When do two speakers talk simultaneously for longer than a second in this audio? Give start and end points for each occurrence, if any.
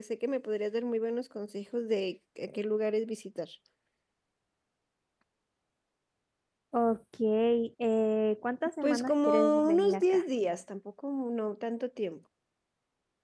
8.8-10.2

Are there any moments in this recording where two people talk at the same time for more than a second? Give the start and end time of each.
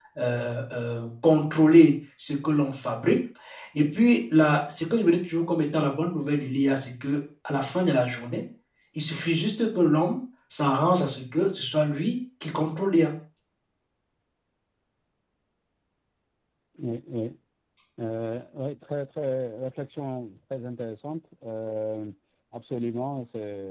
none

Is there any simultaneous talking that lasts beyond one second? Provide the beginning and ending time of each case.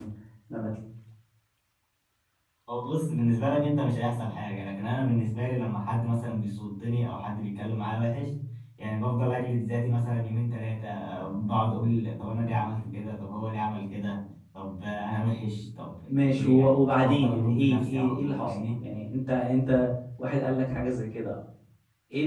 16.2-18.8

